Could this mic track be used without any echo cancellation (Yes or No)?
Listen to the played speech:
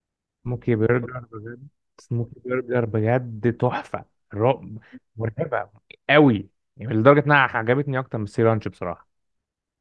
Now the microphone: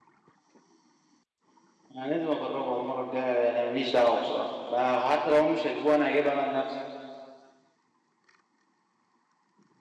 Yes